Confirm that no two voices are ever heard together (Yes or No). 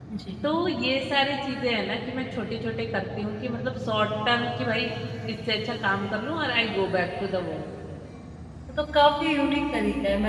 Yes